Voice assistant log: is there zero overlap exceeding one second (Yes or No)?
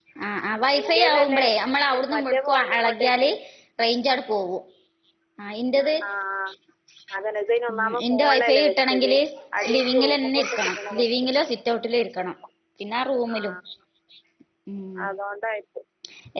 No